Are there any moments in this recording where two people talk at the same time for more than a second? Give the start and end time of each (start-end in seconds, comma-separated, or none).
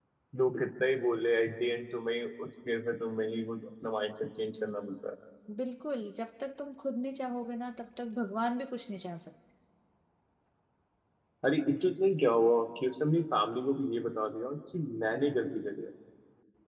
none